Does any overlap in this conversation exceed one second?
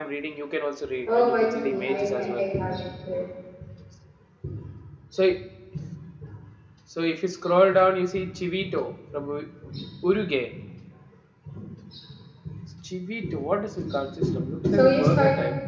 Yes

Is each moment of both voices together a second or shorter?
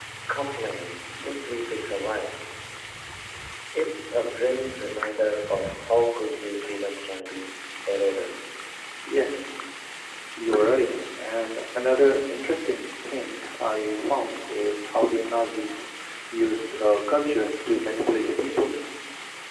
Yes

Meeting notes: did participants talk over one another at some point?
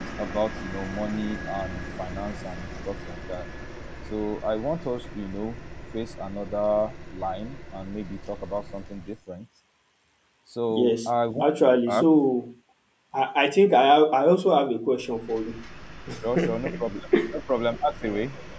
Yes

